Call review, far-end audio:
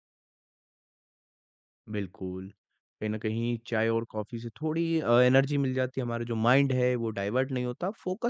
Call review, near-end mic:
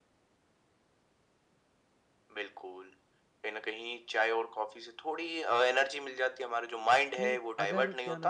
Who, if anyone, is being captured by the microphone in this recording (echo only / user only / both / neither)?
both